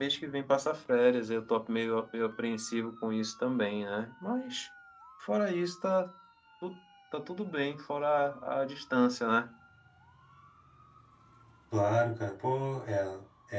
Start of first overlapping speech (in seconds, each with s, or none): none